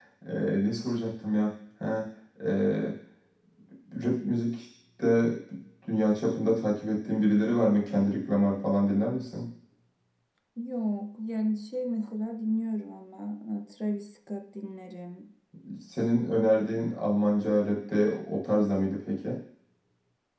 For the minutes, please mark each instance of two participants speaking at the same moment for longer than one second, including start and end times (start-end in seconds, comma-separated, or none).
none